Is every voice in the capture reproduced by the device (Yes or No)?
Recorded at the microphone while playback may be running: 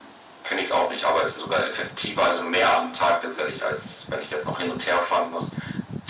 Yes